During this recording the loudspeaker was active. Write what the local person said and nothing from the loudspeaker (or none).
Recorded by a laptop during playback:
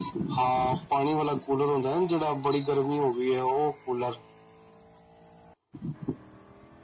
none